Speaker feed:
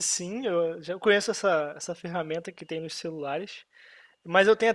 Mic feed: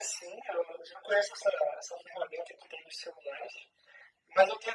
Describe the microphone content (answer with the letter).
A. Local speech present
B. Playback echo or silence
B